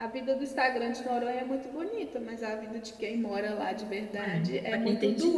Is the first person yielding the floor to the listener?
Yes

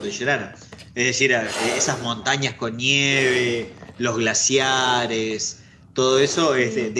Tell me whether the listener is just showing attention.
Yes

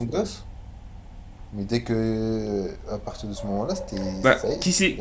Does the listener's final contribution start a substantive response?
Yes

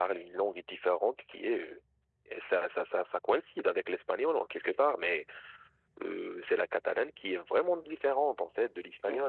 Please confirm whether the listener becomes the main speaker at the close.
No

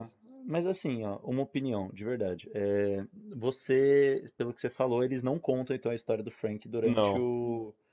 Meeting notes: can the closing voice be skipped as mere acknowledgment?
Yes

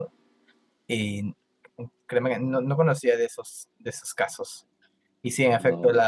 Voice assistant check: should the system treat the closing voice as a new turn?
No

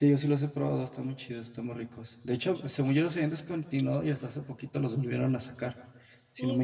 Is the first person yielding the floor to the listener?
Yes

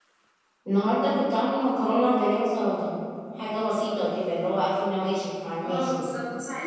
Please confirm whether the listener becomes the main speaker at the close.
Yes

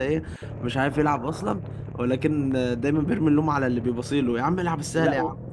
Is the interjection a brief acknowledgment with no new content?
No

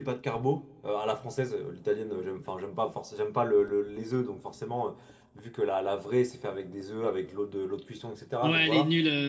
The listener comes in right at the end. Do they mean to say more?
Yes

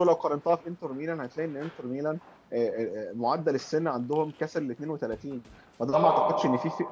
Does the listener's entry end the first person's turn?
No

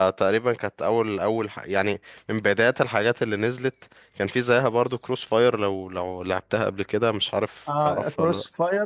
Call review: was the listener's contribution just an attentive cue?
No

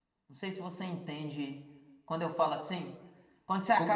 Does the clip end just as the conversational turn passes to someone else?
Yes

